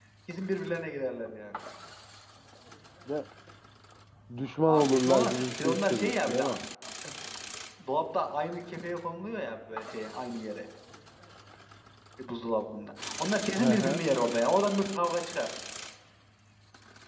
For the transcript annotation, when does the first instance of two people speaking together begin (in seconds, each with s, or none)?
4.7 s